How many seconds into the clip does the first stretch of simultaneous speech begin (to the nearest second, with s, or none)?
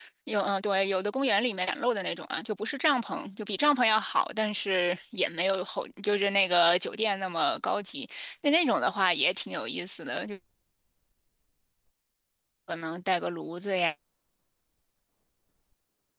none